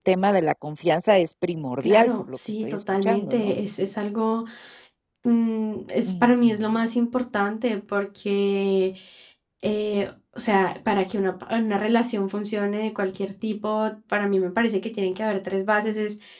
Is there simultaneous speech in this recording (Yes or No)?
Yes